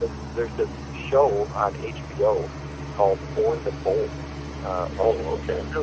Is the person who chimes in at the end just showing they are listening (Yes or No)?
Yes